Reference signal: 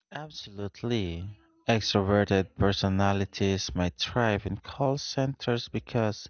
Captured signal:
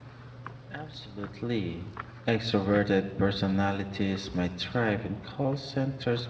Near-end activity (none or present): none